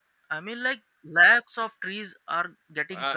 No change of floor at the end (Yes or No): No